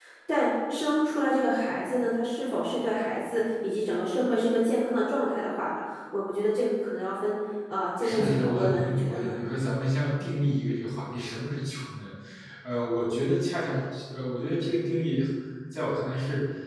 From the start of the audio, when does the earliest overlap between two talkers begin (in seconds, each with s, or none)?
8.0 s